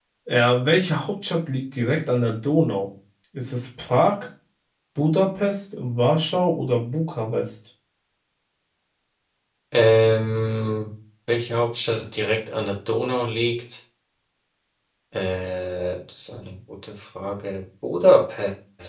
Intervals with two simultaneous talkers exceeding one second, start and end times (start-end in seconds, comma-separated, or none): none